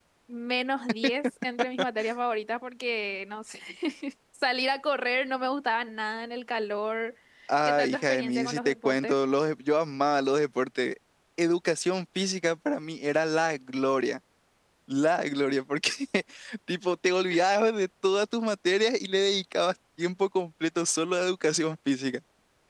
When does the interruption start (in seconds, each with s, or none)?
7.6 s